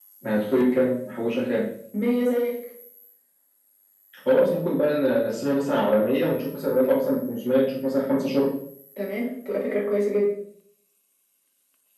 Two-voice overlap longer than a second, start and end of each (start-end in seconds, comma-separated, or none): none